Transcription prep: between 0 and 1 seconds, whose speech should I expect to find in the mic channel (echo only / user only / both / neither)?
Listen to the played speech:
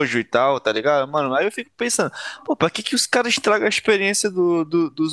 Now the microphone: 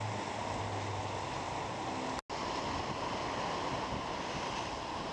neither